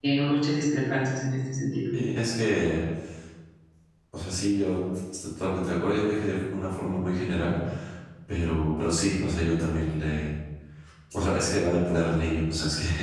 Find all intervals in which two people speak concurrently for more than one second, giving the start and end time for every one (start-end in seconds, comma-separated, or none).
none